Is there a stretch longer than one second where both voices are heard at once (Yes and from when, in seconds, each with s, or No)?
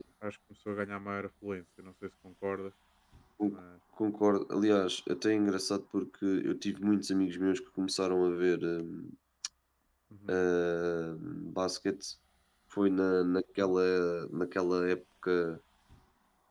No